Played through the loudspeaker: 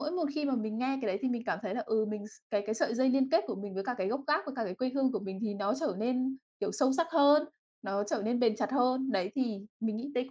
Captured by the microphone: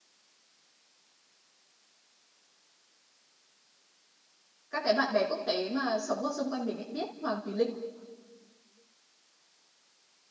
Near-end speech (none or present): present